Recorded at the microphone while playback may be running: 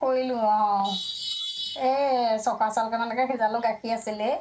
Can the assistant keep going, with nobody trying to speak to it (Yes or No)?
No